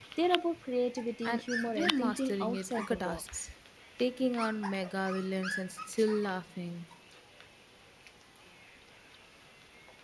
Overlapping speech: Yes, from 1.2 s

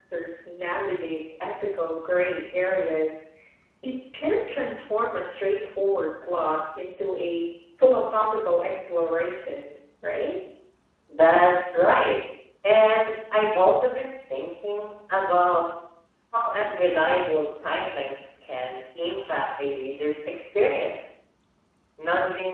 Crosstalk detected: No

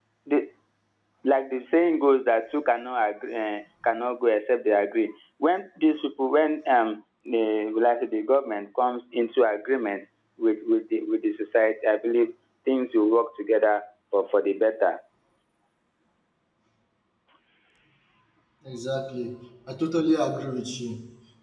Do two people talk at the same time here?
No

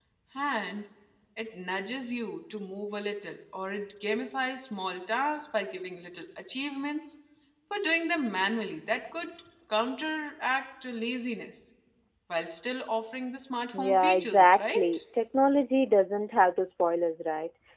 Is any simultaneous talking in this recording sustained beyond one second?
Yes, from 13.7 s

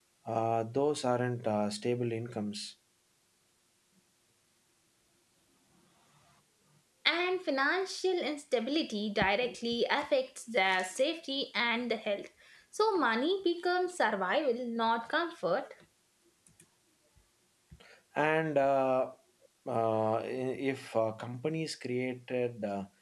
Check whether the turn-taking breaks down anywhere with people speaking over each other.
No

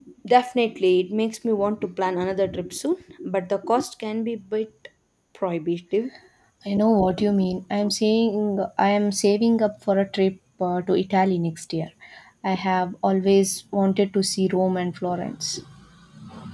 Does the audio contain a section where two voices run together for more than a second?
No

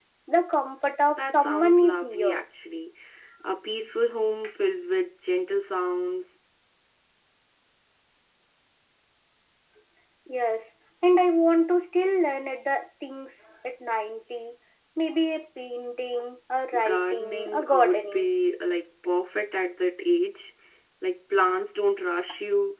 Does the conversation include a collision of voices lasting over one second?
Yes, from 1.1 s

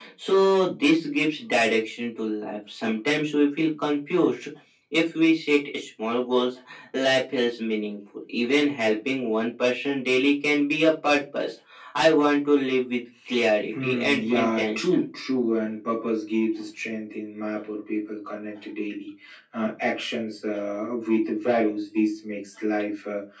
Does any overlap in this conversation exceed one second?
Yes, from 13.6 s

